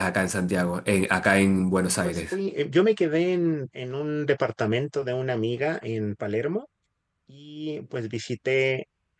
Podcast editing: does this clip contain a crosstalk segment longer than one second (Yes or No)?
No